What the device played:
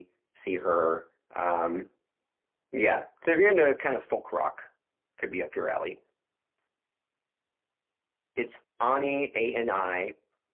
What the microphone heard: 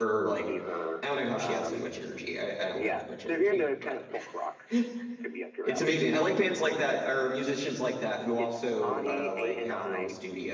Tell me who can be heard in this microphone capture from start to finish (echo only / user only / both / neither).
both